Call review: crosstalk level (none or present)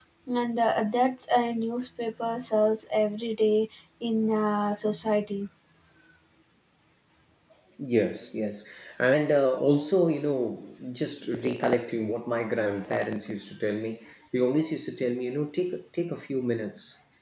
none